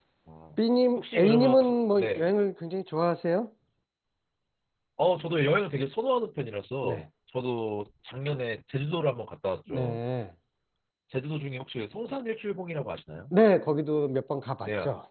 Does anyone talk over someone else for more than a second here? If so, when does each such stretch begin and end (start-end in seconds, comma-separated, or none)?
1.0-2.3